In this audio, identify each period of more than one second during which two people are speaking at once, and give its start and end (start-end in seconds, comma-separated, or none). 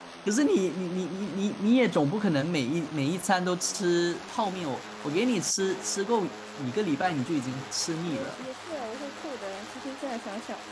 none